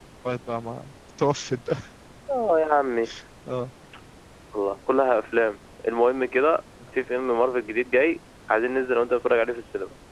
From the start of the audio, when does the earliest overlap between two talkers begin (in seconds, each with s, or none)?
none